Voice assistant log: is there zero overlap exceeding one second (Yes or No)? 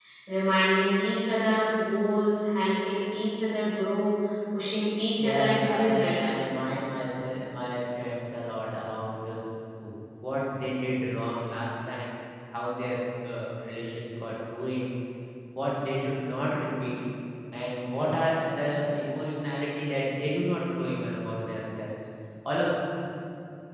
No